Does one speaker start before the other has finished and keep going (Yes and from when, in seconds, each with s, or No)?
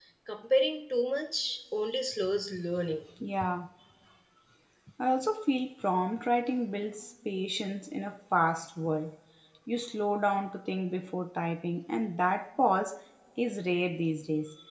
No